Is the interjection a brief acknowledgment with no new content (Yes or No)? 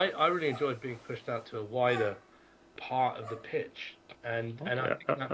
No